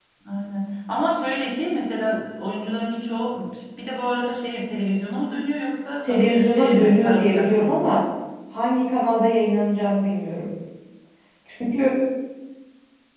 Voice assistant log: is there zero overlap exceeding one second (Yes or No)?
No